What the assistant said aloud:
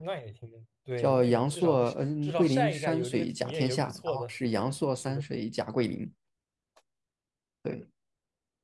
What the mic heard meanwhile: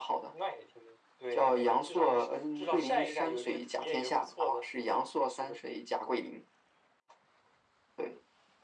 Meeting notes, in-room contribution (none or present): none